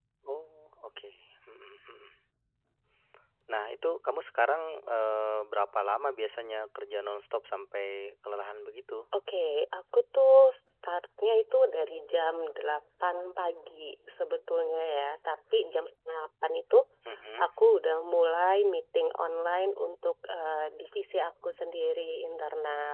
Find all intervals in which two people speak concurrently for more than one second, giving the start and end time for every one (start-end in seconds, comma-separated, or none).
none